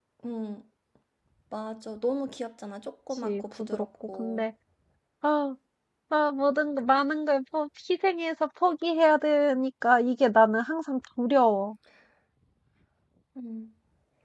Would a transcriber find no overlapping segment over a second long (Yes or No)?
No